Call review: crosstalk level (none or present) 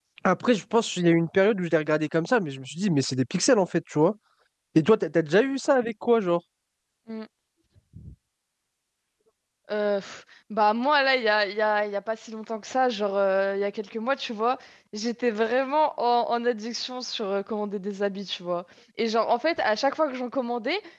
none